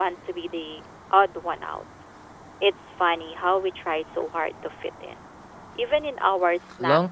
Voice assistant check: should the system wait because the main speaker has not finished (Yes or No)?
No